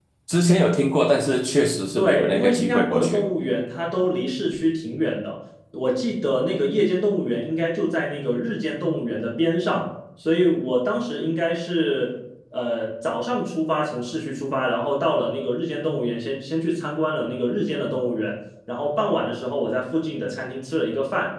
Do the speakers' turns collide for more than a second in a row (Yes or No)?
Yes